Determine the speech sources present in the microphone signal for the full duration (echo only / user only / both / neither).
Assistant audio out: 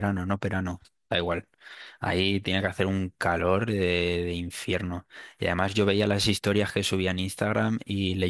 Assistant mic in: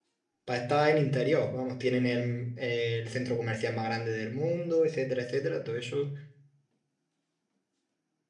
user only